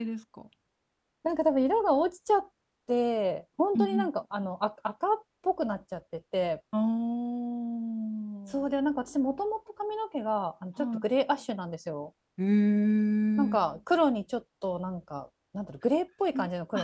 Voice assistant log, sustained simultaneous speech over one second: none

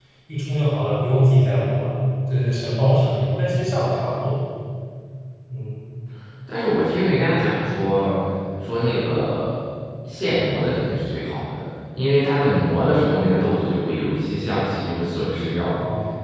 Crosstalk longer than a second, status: none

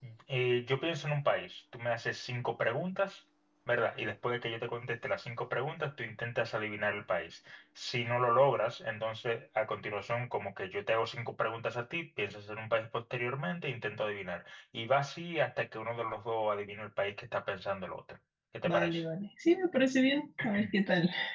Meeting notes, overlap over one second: none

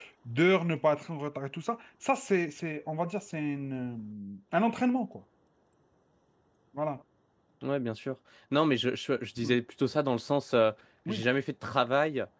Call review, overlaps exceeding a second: none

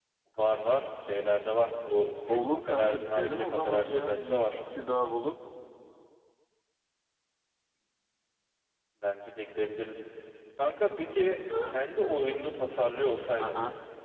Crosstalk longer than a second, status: present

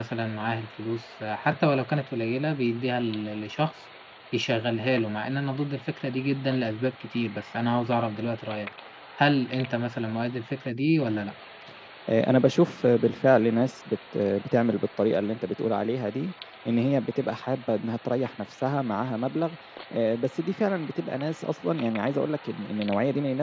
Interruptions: none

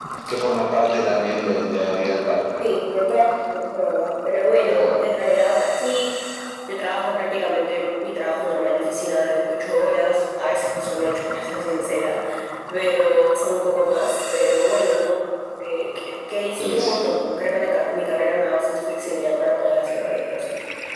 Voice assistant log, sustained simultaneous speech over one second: none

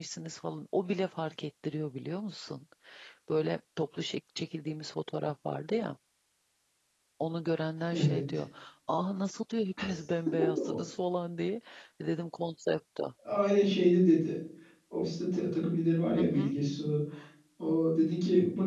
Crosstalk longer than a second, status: none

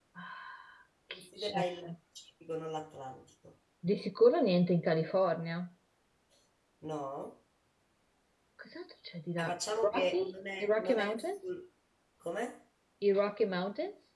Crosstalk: present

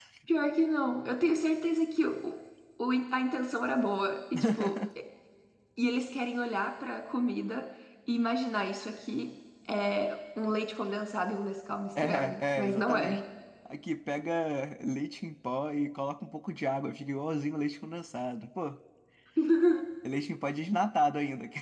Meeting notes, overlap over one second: present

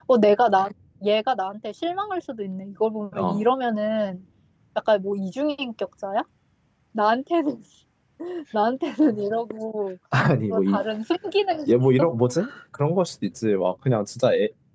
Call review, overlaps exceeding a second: none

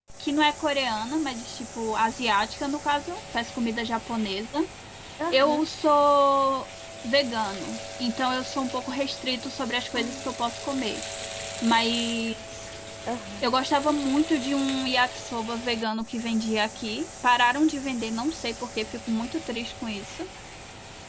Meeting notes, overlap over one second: none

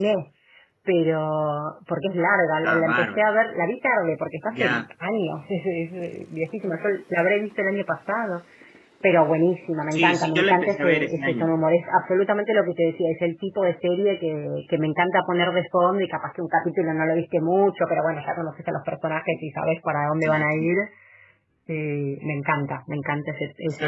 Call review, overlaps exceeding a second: present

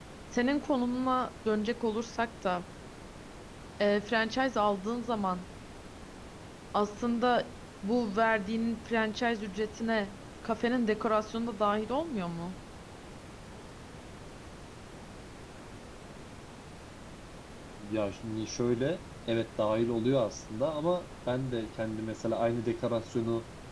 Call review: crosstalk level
none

